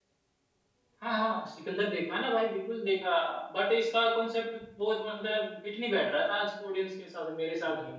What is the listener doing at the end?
taking over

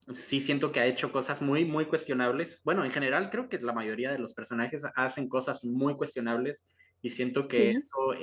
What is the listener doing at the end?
listening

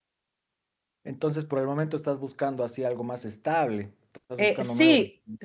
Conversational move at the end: taking over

